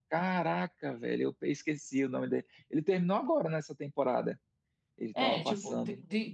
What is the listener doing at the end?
taking over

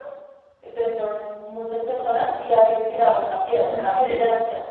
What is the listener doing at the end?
listening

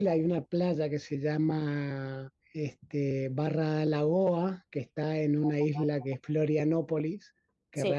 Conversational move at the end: listening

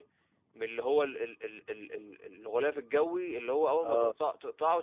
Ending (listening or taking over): listening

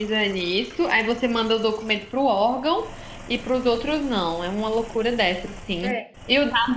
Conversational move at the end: listening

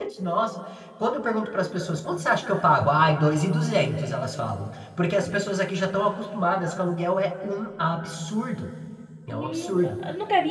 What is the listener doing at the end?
taking over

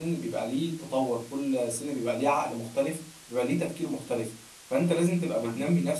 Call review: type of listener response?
listening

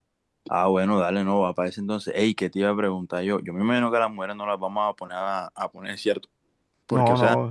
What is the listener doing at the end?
listening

